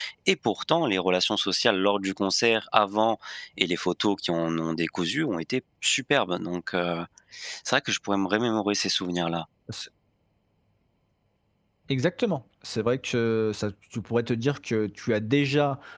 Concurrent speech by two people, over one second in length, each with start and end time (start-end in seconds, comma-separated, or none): none